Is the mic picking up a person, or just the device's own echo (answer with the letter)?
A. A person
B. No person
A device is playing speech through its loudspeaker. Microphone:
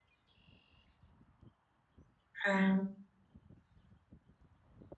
A